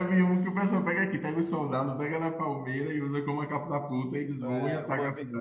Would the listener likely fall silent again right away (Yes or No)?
No